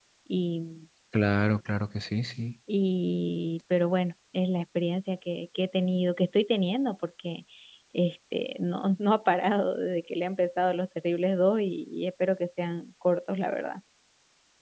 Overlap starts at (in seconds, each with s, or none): none